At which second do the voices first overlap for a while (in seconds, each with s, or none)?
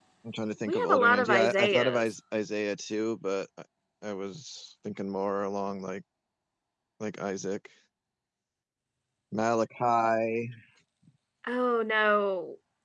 0.7 s